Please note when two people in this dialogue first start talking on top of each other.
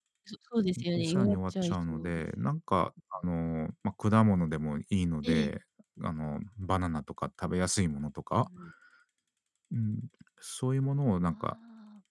1.0 s

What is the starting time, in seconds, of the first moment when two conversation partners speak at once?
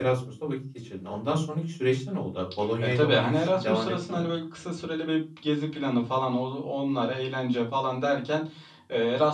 3.0 s

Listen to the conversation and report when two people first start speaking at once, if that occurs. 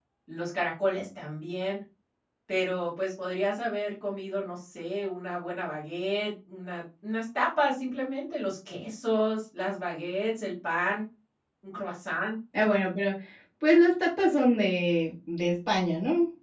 none

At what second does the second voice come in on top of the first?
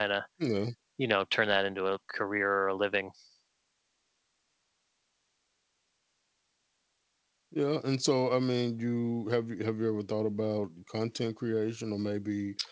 none

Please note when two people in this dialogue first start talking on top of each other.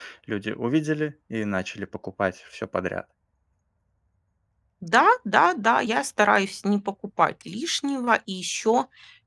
none

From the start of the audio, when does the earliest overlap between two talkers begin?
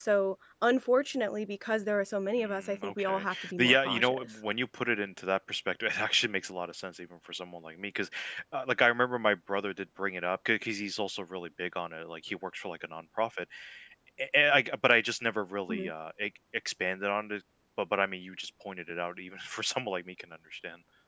2.4 s

